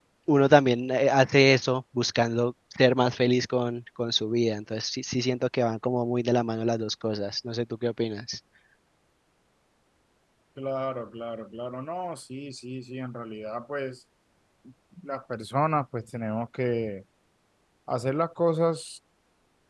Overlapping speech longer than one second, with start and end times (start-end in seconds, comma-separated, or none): none